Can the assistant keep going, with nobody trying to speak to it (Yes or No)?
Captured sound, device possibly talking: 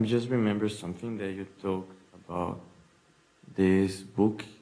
No